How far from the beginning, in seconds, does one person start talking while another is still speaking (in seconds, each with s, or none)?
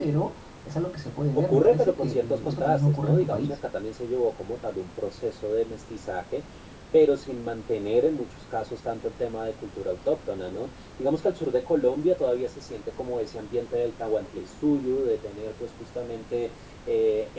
1.4 s